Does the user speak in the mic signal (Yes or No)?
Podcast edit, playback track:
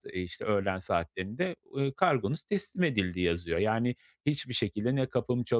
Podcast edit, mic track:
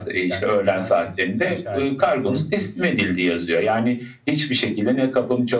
Yes